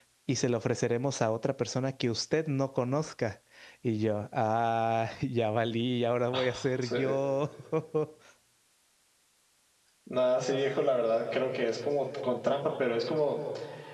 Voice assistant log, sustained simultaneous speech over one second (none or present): none